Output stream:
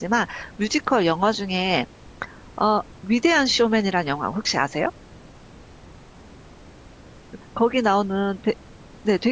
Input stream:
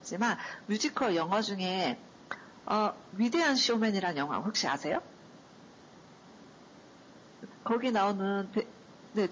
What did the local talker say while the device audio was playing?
none

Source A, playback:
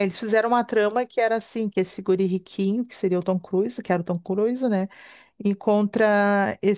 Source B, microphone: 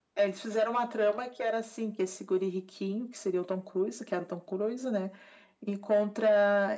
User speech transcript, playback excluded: none

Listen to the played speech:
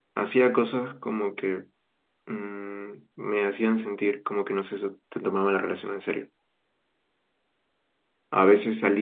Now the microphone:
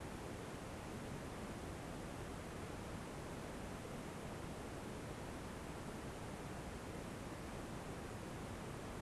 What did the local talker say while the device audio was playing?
none

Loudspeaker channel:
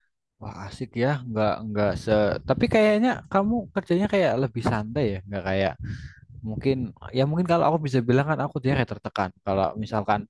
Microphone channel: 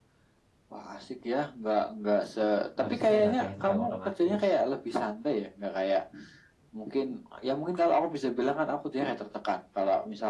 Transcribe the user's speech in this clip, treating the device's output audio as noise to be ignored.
Habis itu udah ke enkal otomatis.

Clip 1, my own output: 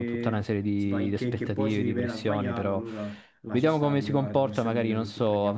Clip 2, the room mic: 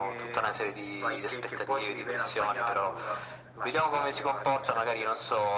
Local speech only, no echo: none

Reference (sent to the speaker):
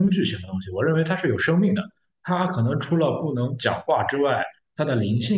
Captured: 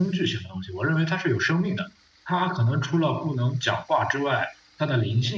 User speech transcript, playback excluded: none

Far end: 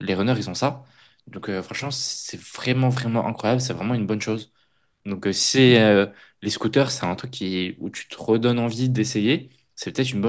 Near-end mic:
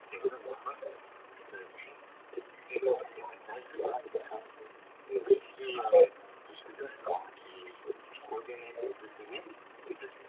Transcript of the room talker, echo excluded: none

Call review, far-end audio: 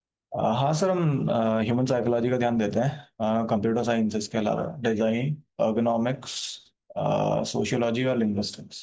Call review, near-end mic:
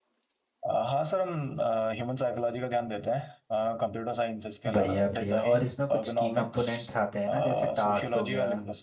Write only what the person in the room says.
बढ़िया बढ़िया और इसमें कुछ की कंपोनेंट्स आते हैं ना जैसे टास्क हो गया

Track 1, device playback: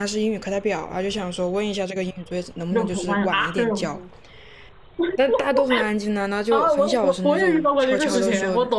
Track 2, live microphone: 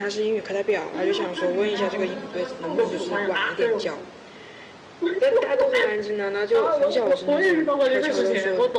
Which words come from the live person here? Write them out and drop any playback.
真的吗？就是你们家楼下的河叫菜无市河

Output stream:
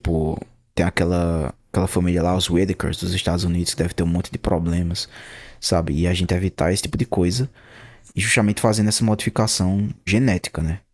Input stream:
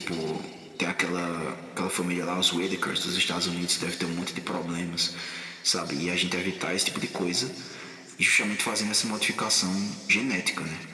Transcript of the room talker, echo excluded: none

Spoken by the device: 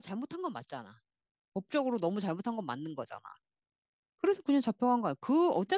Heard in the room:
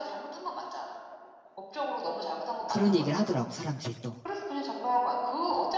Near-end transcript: 그런 얘기를 하더라고, 사람들이 또.

